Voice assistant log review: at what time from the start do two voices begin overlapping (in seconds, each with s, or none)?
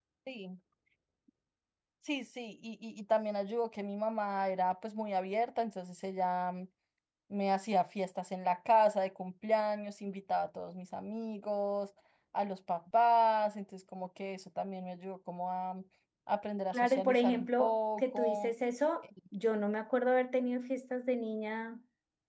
16.7 s